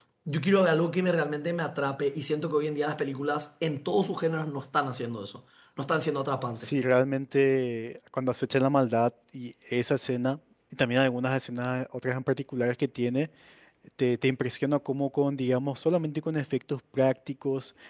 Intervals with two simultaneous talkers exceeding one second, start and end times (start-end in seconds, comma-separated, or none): none